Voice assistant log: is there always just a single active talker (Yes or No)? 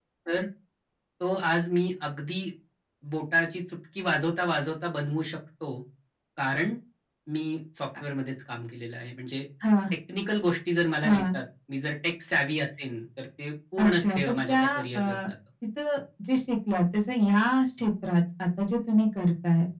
No